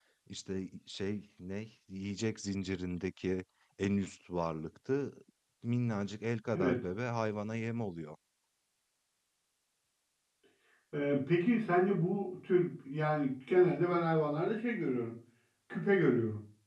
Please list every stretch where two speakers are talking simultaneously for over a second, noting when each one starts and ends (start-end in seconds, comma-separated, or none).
none